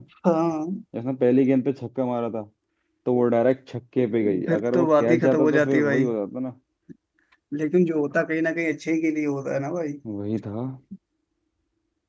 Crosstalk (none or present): present